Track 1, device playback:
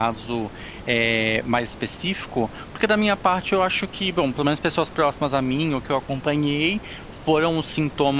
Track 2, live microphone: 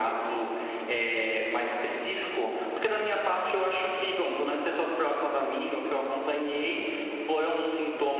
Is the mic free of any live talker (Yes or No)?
Yes